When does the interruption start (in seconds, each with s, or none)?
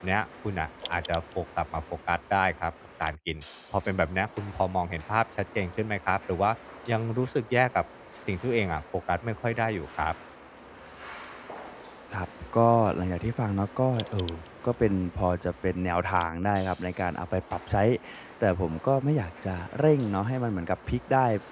none